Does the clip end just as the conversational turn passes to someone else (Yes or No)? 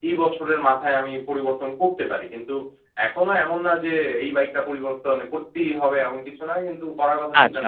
Yes